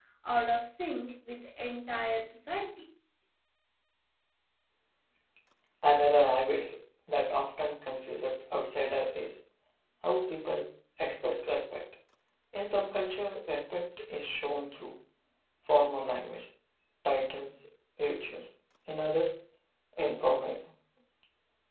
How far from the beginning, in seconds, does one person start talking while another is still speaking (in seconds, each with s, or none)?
none